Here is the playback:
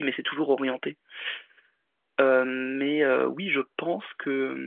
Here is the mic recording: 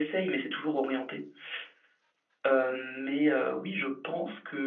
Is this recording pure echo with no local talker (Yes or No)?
Yes